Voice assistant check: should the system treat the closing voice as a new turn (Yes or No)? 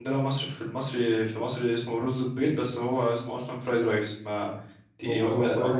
Yes